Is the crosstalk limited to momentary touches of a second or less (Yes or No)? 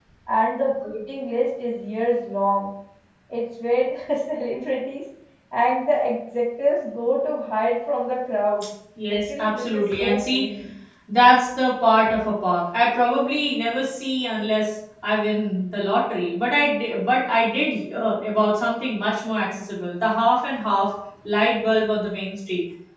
No